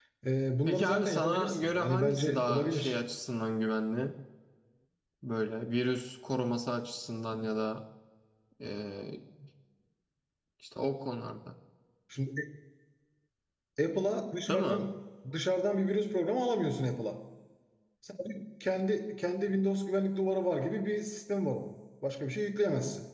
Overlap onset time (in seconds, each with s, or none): 0.7 s